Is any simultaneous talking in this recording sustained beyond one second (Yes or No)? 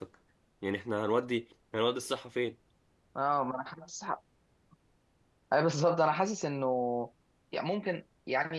No